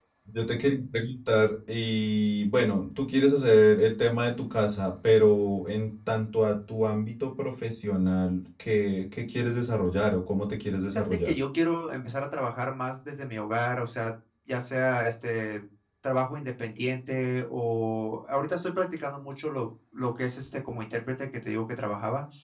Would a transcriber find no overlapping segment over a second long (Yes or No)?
Yes